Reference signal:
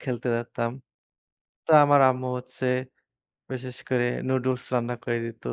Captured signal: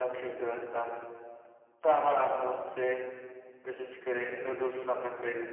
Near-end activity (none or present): none